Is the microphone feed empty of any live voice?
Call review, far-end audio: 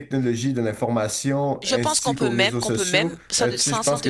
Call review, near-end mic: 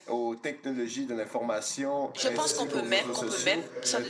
No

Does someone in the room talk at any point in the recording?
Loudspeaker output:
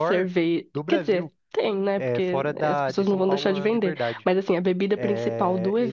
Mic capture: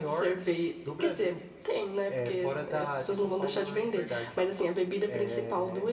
No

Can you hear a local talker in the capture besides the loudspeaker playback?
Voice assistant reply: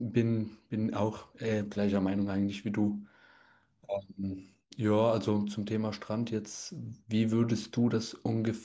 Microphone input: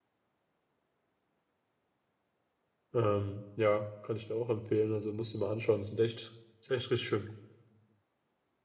Yes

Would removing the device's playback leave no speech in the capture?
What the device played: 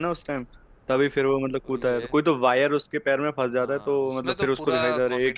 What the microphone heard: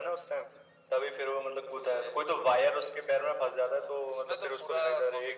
Yes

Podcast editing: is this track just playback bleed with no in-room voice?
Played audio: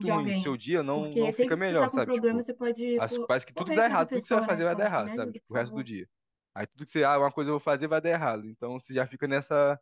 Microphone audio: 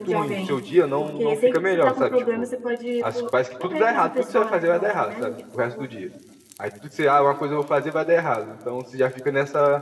Yes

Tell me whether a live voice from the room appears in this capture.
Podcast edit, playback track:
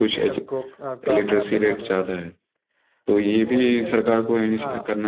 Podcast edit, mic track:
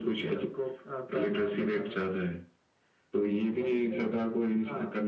No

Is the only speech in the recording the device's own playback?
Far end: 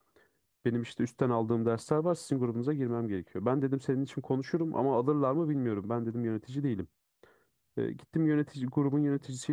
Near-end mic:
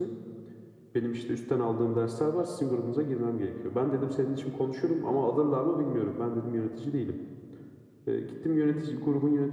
Yes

